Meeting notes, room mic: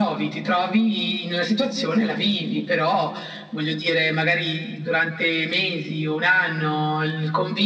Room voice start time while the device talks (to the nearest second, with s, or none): none